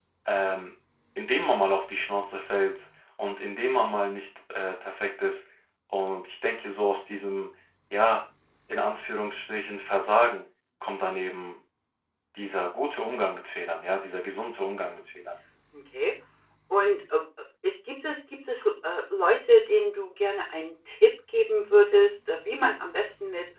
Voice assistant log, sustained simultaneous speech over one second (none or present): none